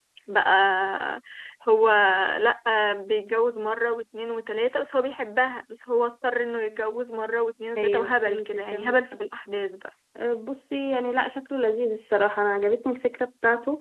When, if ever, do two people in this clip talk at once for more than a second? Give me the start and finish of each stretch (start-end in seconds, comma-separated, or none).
7.8-9.2